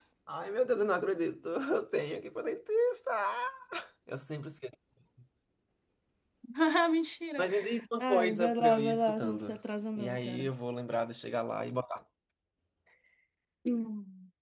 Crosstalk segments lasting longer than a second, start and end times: 8.0-9.6

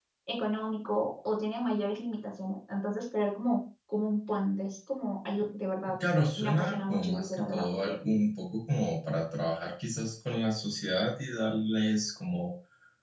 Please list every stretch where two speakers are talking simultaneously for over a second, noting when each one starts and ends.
6.4-8.0

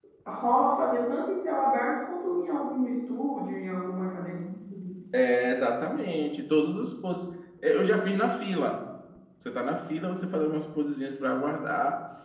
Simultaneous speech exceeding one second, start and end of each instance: none

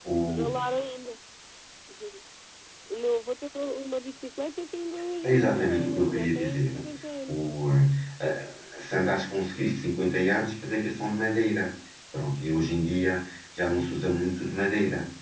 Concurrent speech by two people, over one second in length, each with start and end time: 5.2-6.7

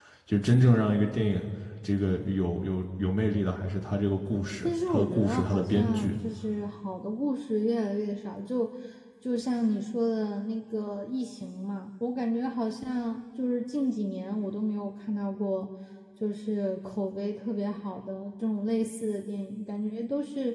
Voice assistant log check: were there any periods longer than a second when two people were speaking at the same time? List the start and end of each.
4.6-6.2

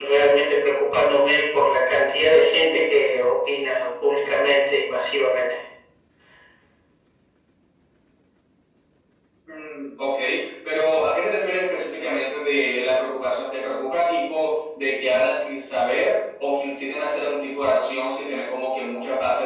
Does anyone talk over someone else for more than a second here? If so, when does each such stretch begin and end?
none

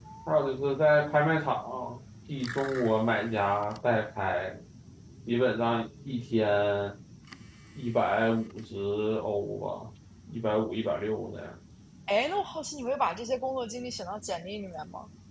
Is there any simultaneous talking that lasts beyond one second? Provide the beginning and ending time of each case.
none

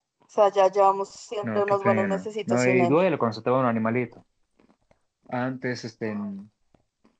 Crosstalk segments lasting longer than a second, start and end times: 1.4-3.0

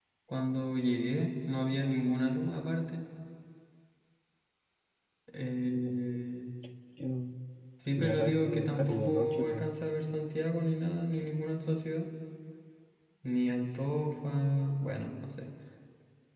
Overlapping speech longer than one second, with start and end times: 8.0-9.6

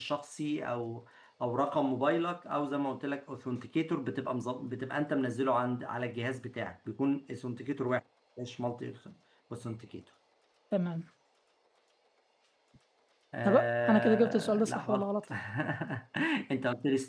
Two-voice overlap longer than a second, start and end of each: 13.9-15.2

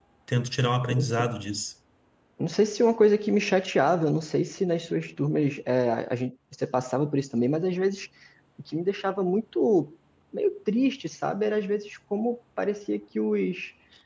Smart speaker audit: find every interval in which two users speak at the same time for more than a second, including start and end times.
none

